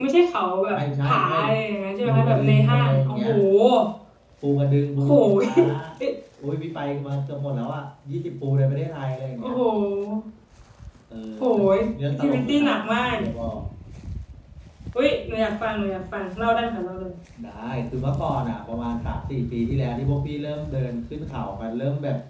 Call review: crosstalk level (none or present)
present